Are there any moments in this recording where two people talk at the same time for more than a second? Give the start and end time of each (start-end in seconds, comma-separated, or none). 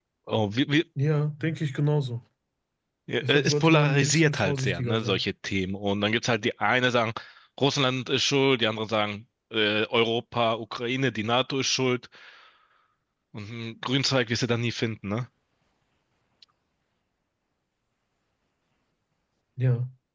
3.2-5.2